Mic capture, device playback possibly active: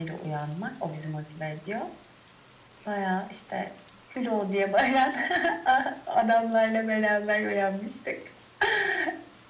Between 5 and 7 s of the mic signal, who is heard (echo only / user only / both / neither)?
echo only